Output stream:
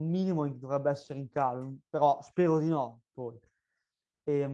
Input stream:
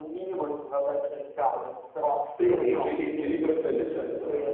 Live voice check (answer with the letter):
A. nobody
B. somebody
B